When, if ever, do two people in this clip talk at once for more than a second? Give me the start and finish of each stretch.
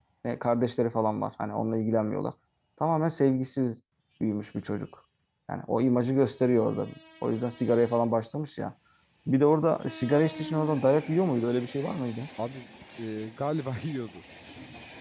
none

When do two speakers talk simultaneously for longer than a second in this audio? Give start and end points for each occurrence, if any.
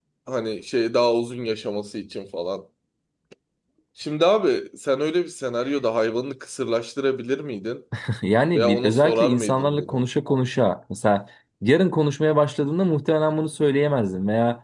8.5-10.0

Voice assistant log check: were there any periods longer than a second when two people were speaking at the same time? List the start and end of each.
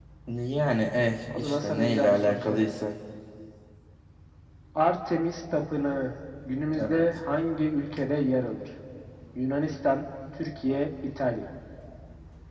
1.4-2.7

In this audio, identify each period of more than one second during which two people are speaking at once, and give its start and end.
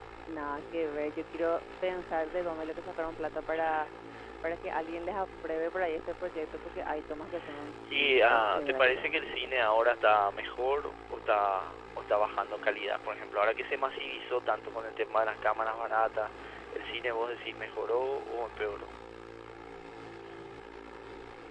7.9-9.3

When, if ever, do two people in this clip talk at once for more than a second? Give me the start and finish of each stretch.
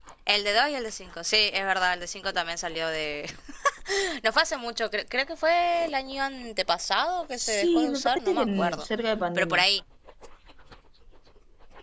7.6-8.8

